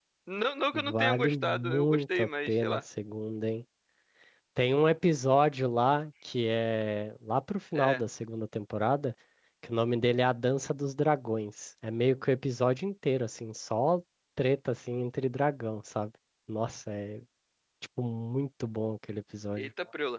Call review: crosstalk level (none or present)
present